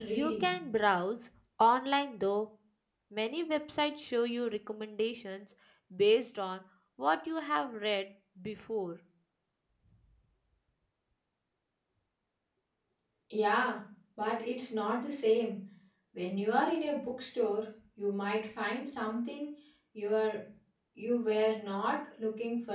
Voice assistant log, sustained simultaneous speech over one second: none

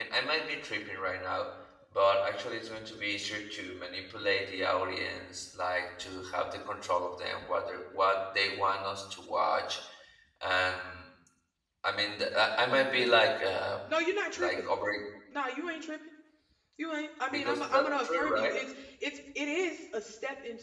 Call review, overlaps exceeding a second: present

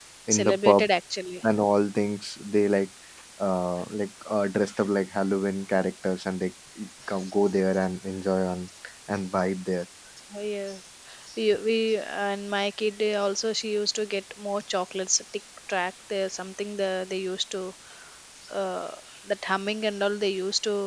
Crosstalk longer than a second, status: none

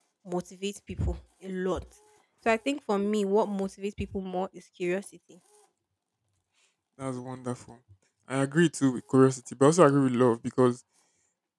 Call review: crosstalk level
none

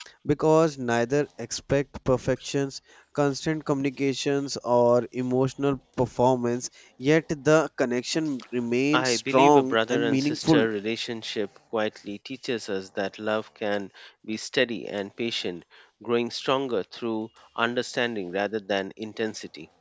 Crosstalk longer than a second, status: present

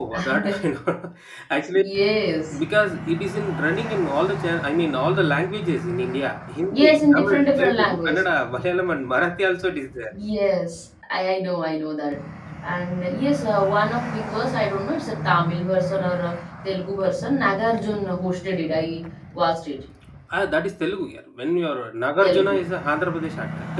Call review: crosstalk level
present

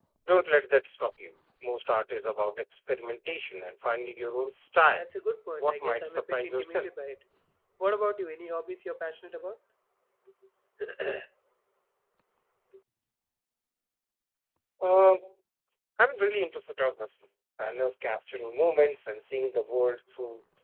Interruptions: present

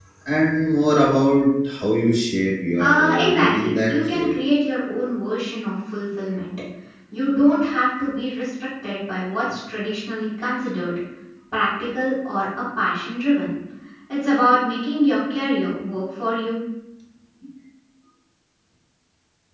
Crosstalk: present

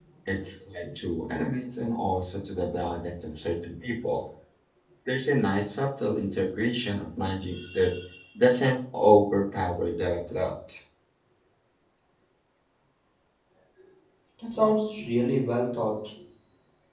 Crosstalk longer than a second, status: none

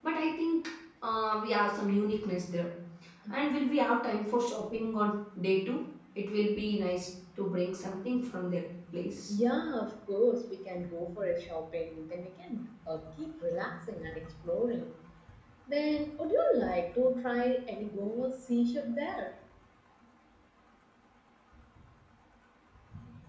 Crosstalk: none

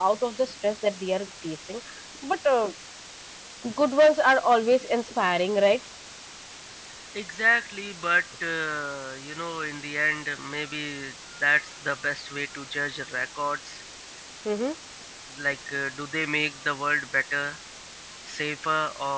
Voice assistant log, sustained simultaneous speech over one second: none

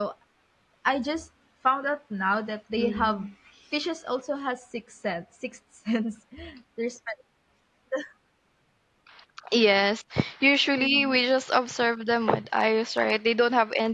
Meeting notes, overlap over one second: none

